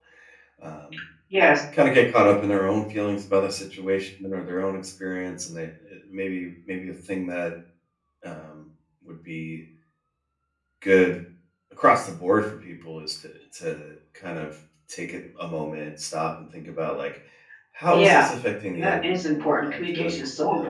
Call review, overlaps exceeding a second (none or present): present